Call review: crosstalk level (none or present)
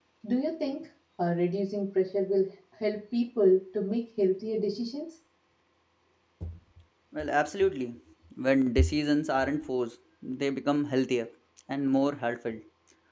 none